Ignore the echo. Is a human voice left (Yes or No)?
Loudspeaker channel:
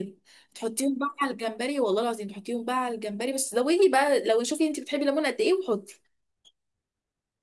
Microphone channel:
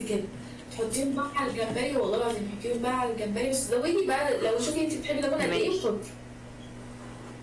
Yes